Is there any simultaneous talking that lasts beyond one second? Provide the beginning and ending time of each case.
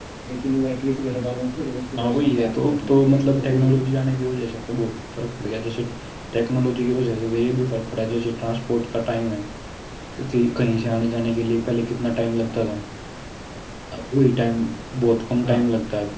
2.0-3.8

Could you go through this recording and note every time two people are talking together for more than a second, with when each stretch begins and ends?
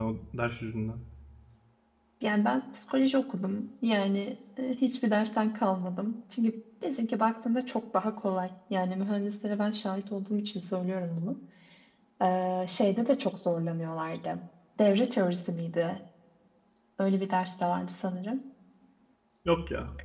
none

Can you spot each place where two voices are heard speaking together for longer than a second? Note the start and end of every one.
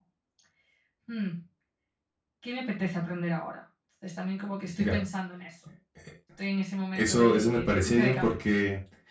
7.0-8.5

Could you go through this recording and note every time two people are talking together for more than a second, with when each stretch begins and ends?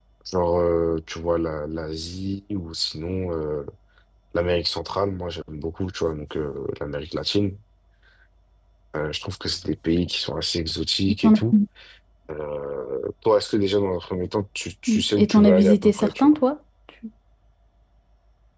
15.2-16.4

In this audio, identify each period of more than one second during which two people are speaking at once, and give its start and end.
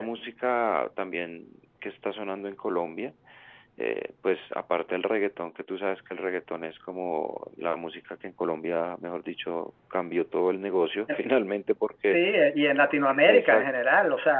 none

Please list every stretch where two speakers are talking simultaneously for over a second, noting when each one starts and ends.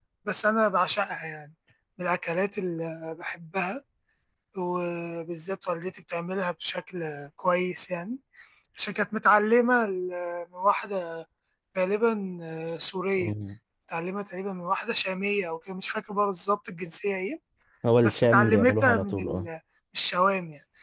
18.0-19.5

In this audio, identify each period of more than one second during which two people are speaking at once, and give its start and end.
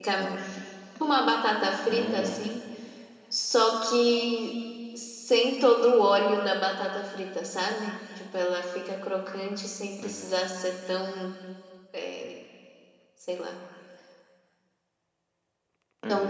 none

